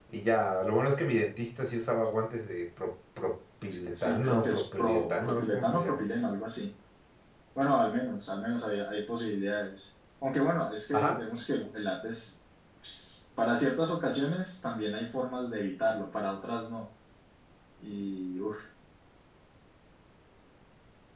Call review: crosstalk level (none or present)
present